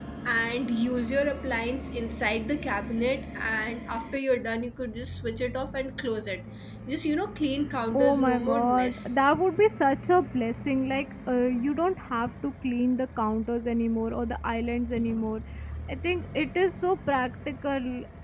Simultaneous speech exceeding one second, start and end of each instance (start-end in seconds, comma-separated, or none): 7.9-9.2